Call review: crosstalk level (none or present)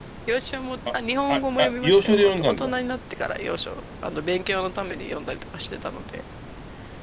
present